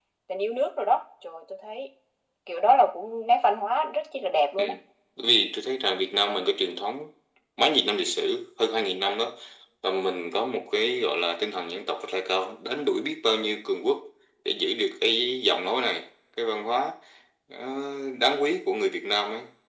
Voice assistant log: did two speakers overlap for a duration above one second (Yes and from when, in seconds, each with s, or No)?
No